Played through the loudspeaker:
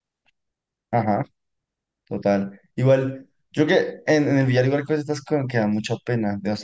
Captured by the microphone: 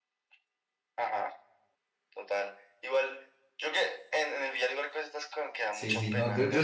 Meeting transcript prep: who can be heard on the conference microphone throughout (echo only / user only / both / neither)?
both